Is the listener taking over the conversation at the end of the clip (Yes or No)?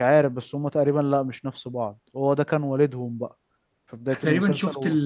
Yes